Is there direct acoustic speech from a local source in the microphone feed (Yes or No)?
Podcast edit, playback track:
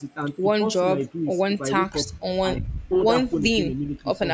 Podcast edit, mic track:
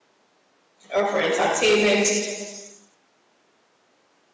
Yes